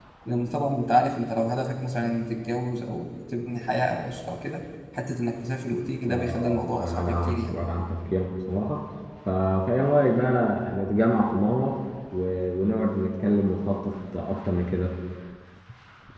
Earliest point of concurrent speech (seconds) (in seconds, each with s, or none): 6.1 s